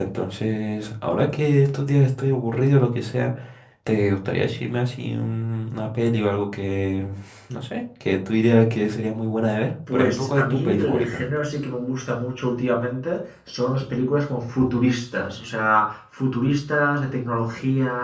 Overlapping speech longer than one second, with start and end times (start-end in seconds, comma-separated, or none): 9.9-11.2